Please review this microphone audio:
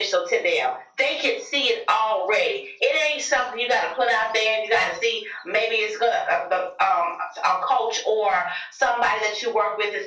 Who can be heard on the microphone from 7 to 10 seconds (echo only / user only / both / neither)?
echo only